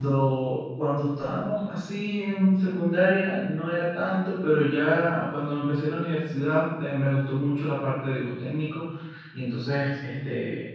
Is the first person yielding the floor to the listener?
No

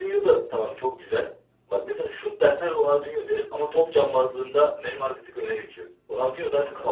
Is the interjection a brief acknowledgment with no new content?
Yes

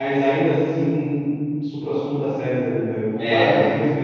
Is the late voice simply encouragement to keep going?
Yes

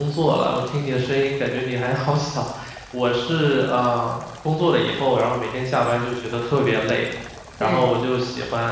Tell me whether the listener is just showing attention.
Yes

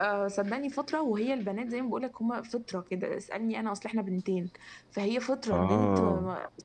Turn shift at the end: No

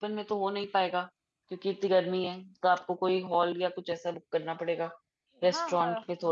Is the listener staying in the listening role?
No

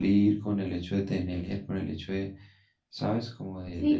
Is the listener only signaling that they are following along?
No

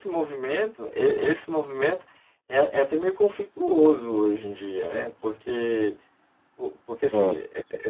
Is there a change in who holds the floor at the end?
No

